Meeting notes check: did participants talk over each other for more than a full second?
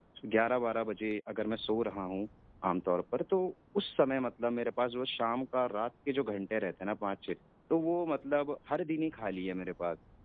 No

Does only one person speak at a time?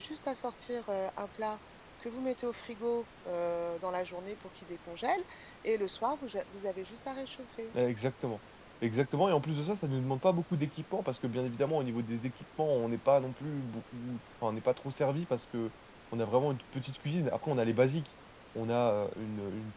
Yes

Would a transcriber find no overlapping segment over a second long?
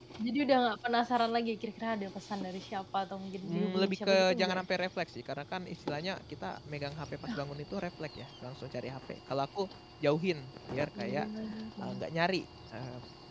No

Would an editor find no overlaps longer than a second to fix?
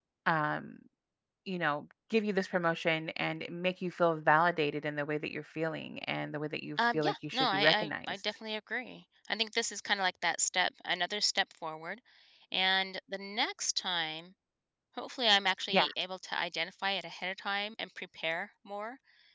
No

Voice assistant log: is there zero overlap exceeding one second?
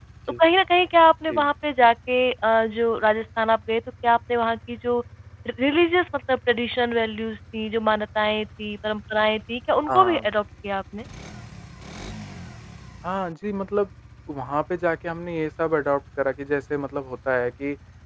Yes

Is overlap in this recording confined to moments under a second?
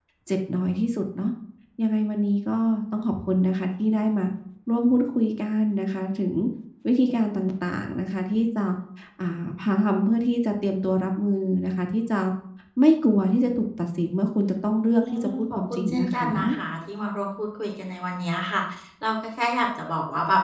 No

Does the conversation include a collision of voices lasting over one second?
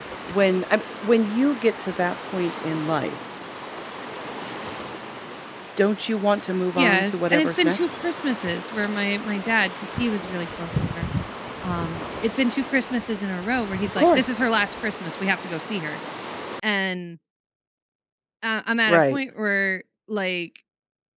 Yes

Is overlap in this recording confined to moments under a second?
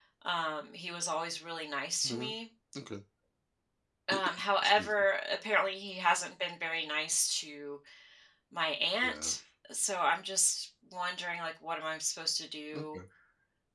Yes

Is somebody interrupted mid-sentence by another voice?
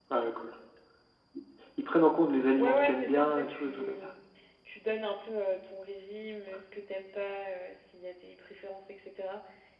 Yes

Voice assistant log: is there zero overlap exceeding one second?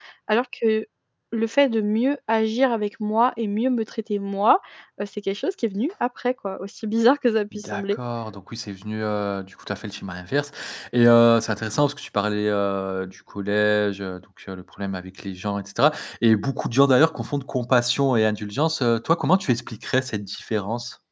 Yes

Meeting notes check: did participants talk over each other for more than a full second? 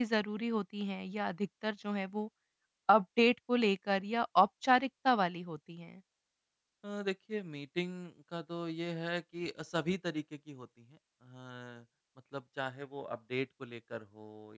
No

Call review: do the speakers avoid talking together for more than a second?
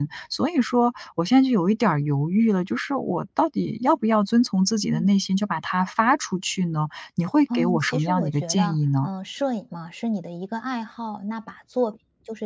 No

